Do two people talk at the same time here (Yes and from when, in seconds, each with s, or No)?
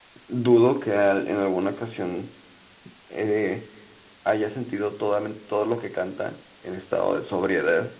No